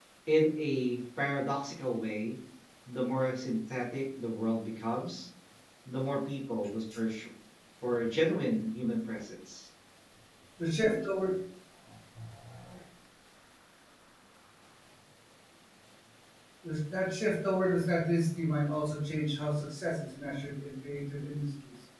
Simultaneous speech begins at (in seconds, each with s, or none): none